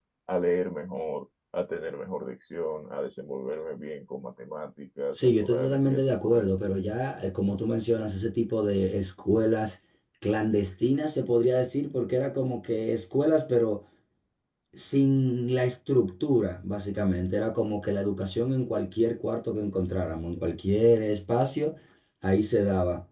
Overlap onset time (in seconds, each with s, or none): 5.1 s